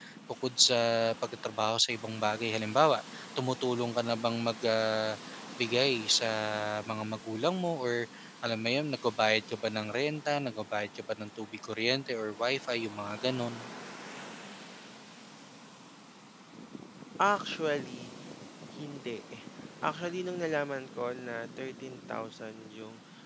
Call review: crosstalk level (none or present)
none